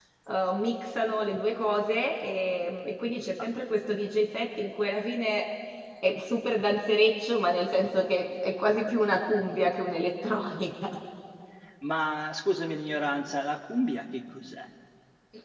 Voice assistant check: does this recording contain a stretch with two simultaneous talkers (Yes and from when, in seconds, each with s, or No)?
No